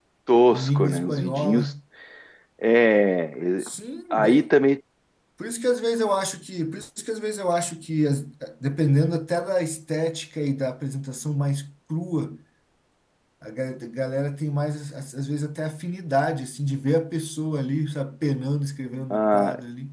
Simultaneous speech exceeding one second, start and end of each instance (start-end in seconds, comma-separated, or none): 0.5-1.7